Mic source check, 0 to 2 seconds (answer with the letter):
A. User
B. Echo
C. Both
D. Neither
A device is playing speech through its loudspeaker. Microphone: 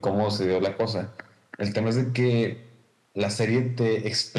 B